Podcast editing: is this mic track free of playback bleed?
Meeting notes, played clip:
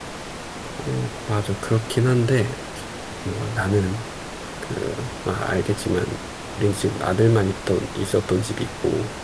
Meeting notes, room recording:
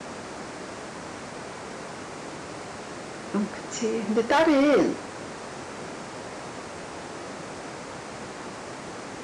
Yes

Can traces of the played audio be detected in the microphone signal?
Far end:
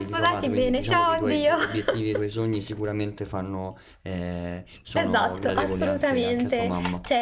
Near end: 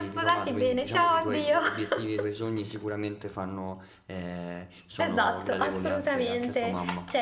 Yes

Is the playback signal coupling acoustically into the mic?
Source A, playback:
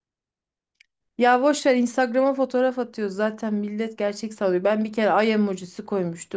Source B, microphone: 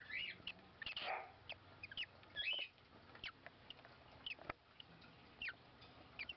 No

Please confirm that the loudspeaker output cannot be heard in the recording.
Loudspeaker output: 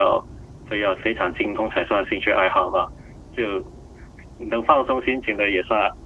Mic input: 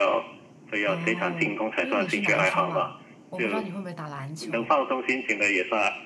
No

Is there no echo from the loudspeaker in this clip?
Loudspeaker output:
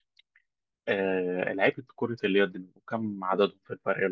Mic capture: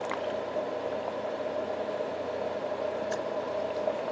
Yes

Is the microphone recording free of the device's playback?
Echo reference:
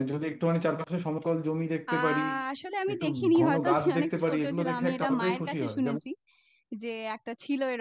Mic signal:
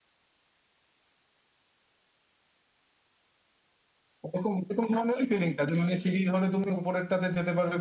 Yes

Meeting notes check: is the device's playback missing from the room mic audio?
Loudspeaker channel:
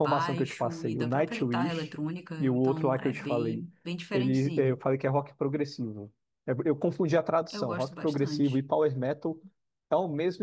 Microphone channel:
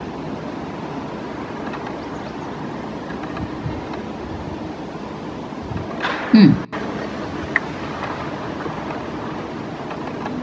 Yes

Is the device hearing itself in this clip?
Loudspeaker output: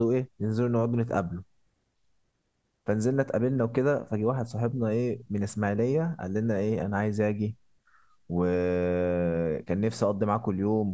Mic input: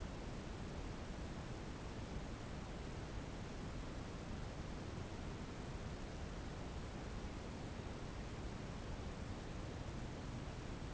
No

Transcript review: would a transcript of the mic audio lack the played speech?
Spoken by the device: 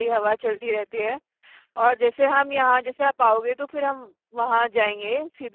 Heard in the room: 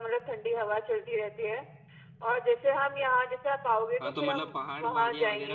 No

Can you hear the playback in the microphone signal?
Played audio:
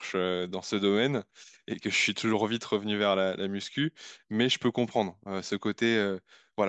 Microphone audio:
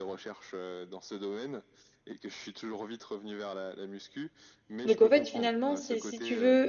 Yes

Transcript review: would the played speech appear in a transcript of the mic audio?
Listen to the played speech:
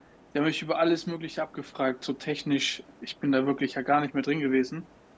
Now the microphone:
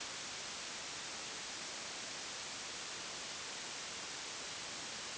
No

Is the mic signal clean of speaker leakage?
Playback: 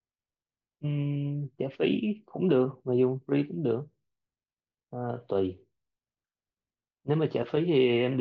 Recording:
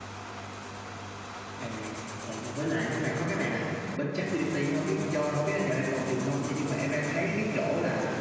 Yes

